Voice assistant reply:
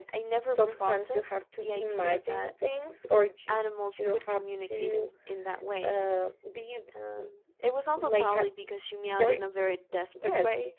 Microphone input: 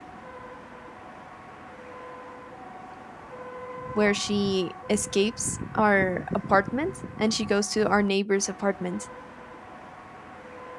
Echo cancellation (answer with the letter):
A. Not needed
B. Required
A